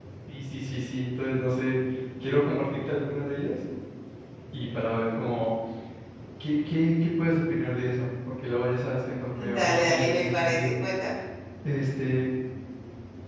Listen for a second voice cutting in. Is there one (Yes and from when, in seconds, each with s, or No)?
Yes, from 9.3 s